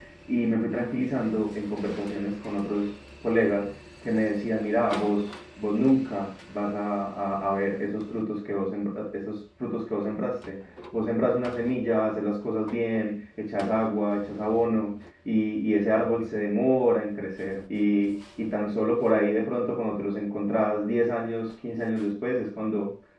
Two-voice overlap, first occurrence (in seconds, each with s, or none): none